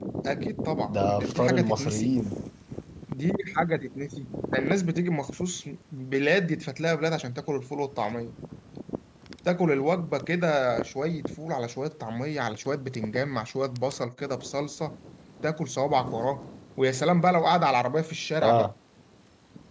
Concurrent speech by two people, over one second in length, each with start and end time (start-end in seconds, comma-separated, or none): 0.9-2.2